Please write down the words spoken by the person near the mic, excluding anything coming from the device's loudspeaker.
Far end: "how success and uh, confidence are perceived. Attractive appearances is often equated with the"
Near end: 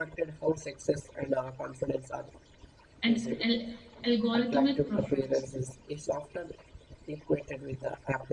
and al- algorithmic preference.

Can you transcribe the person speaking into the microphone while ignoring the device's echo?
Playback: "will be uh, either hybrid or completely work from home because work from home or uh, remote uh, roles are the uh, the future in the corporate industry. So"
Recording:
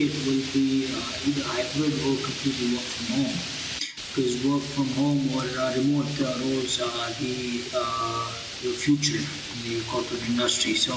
none

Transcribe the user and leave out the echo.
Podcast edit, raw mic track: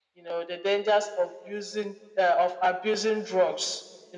none

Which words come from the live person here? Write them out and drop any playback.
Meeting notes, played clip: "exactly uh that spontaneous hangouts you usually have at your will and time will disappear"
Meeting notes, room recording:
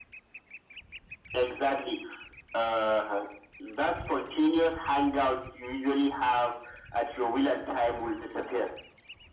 none

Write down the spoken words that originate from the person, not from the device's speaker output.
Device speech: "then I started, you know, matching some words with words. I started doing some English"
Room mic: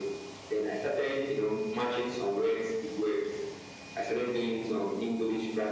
none

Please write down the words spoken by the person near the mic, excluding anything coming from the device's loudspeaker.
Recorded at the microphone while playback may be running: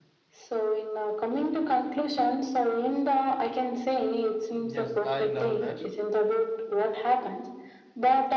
Yes, I love that.

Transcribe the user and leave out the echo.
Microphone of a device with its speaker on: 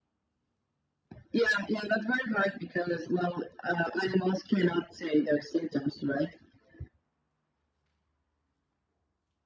none

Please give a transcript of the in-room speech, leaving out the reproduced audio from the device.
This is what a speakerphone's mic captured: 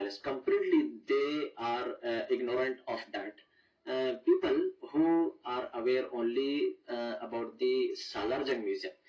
none

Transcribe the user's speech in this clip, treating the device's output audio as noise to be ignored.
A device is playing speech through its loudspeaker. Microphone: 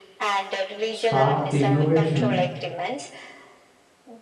sparked the innovation

